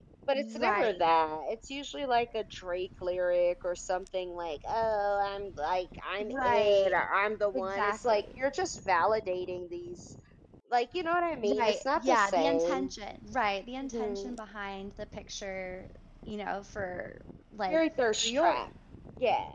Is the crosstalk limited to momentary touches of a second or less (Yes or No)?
No